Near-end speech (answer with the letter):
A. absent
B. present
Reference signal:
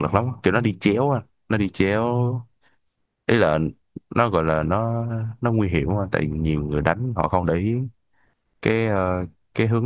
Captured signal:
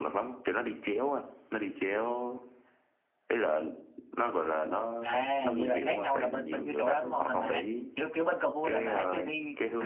B